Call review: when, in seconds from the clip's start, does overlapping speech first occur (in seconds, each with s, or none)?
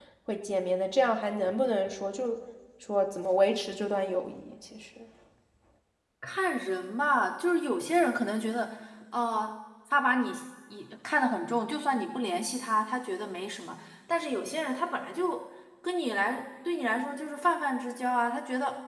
none